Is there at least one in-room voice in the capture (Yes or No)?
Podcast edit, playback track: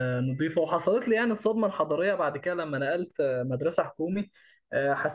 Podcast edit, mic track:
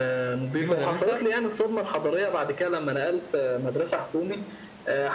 Yes